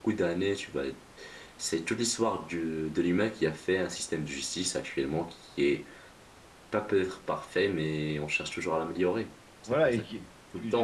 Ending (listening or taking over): taking over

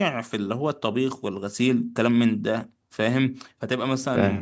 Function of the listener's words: listening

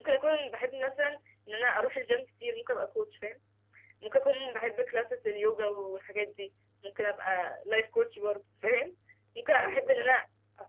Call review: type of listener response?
listening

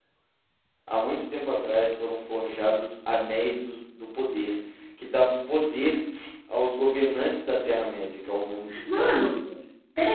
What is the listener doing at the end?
taking over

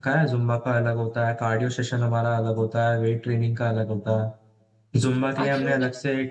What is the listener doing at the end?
listening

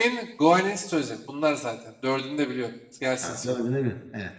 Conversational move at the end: taking over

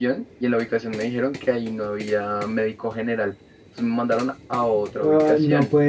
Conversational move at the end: taking over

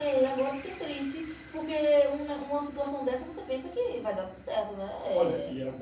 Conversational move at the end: taking over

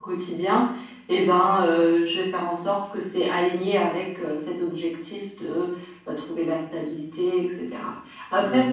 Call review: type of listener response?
listening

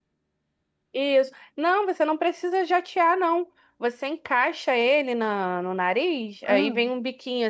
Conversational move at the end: listening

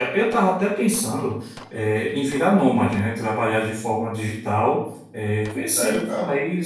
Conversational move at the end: listening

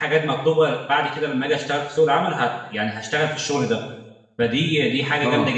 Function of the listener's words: listening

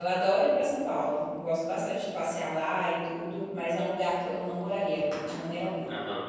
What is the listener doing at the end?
taking over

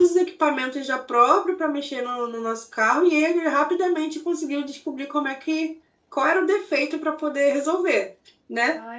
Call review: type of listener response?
listening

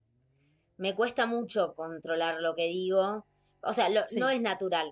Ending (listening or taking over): listening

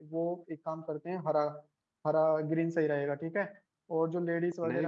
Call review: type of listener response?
listening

